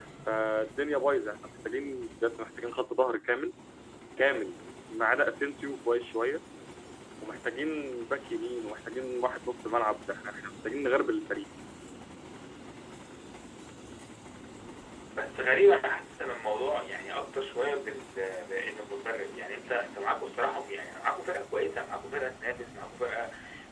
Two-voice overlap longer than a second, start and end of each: none

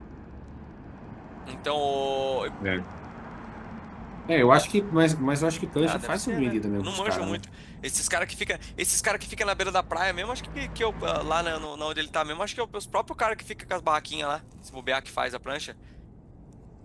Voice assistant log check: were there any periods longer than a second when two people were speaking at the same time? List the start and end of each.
5.8-7.4

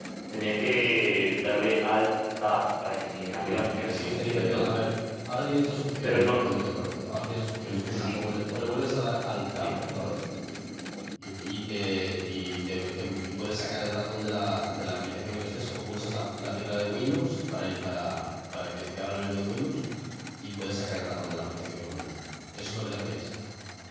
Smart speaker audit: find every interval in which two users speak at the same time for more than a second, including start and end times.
3.4-4.6

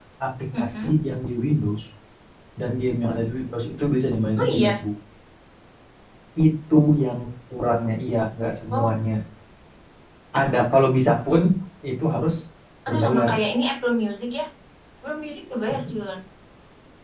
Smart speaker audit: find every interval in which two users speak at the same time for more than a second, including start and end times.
none

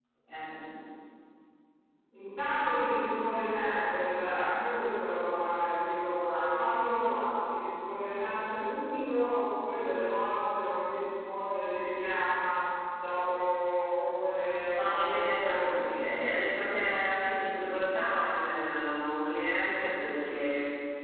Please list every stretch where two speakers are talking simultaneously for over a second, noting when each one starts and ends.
14.7-16.0

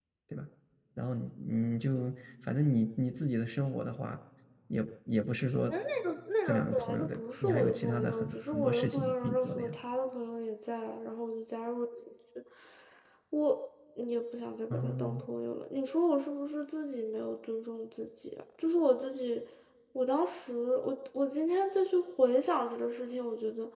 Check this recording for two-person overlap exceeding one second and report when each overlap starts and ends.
6.4-9.7

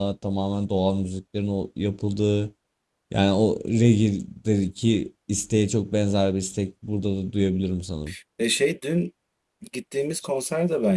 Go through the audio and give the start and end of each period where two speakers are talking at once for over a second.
none

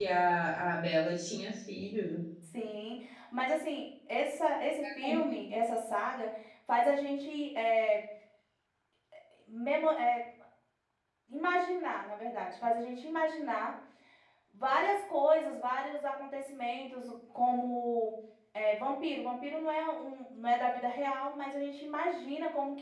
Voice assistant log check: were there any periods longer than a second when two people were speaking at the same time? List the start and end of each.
none

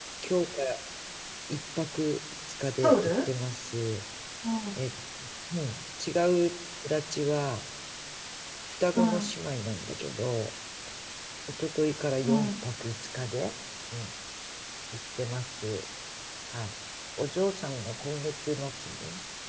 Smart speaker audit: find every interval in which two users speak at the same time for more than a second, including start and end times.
none

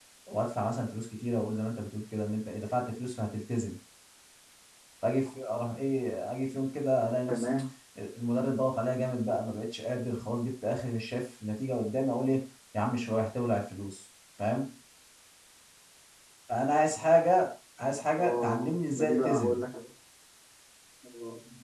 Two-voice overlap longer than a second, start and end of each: 18.2-19.6

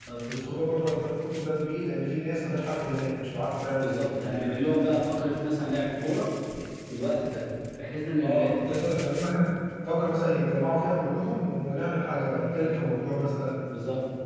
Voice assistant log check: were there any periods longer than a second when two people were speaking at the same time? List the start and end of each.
none

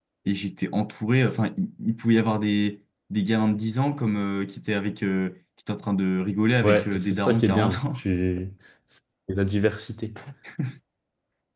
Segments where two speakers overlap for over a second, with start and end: 6.6-8.0

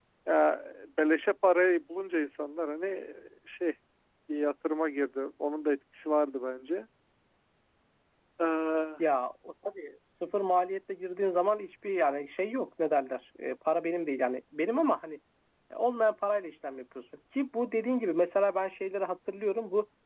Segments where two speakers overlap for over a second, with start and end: none

